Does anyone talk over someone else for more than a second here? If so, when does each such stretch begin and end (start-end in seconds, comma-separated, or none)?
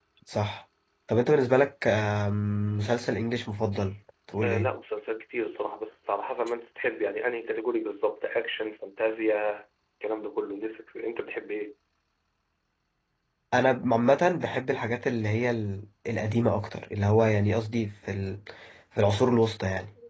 none